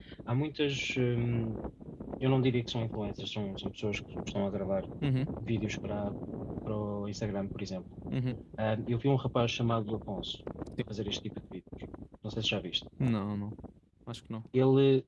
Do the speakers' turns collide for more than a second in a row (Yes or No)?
No